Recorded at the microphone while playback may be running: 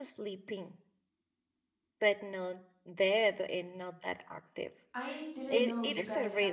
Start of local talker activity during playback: 4.9 s

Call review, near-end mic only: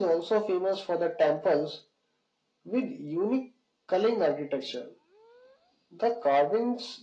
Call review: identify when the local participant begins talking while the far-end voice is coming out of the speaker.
none

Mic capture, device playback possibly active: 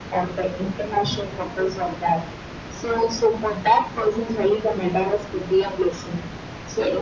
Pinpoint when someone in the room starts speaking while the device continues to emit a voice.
none

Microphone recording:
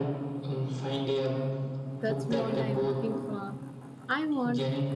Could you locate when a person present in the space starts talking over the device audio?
2.0 s

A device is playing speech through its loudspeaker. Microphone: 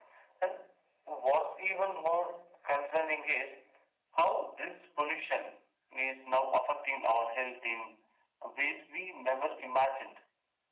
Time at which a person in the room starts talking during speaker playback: none

